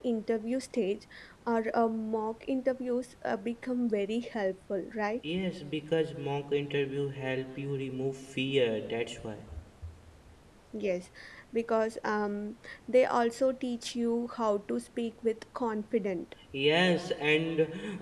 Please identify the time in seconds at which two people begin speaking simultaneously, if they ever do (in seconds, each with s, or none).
none